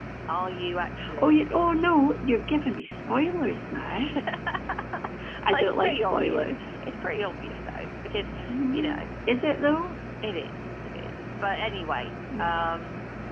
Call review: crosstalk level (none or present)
present